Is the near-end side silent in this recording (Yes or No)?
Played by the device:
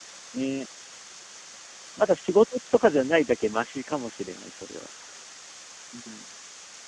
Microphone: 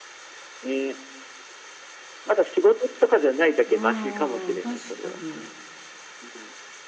No